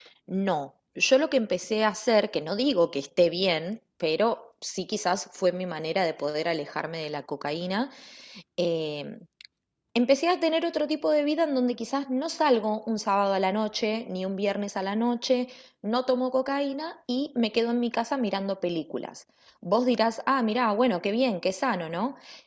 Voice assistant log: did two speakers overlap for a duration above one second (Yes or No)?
No